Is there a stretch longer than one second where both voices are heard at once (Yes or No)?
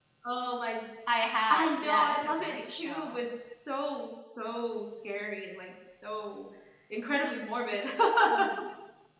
Yes